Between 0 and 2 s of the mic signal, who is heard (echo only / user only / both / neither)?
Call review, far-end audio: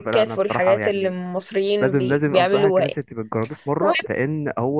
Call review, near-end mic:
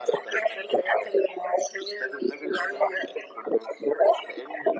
echo only